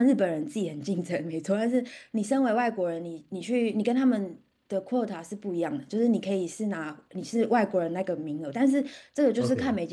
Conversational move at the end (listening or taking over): listening